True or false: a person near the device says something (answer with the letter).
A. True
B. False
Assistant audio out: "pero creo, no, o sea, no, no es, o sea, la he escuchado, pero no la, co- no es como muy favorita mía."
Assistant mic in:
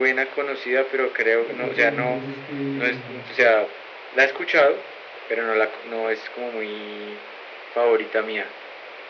A